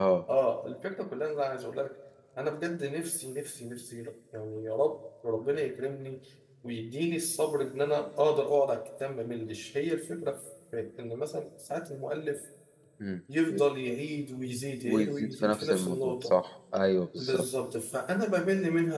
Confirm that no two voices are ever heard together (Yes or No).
No